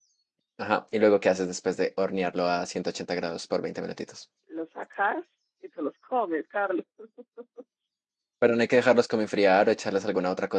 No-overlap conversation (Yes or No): Yes